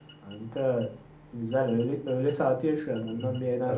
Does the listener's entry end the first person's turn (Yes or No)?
Yes